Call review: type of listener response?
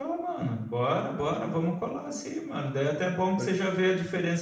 listening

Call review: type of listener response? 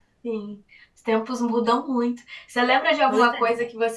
listening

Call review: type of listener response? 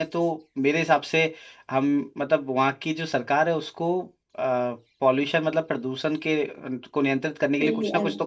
taking over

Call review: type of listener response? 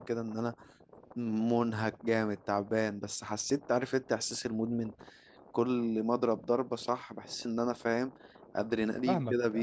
taking over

